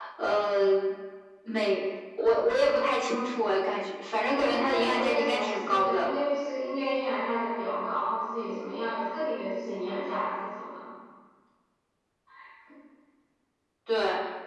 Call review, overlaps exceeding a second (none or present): present